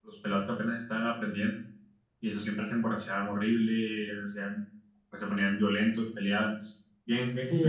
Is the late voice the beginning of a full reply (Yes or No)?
Yes